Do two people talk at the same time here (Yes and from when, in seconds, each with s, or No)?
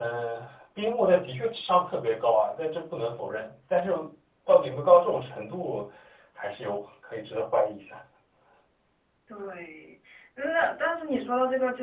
No